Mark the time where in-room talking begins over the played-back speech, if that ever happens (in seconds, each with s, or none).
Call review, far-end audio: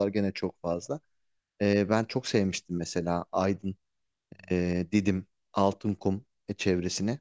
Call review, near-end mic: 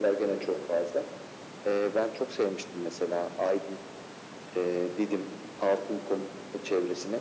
none